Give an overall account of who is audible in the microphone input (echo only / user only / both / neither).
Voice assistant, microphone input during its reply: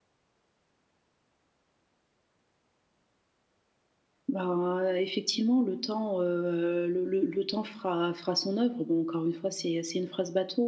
user only